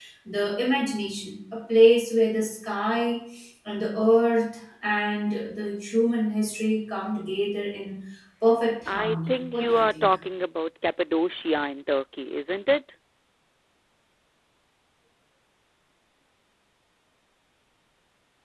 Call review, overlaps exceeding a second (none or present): present